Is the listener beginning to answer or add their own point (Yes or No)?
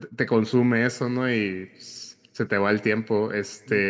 No